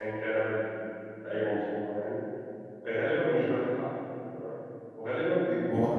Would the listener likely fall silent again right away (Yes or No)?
Yes